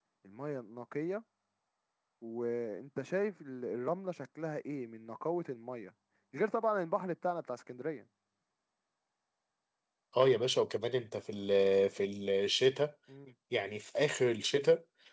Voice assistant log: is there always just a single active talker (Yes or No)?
Yes